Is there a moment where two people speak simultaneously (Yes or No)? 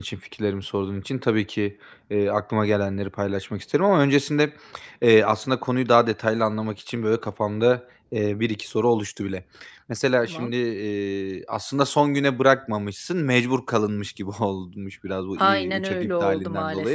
Yes